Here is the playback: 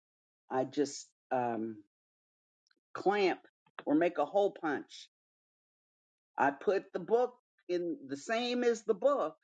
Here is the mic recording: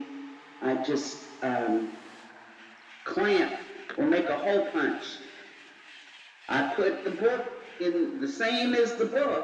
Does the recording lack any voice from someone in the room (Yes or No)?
Yes